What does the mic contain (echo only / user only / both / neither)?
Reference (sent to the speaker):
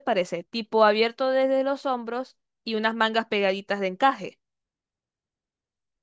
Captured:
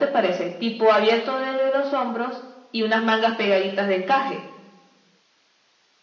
echo only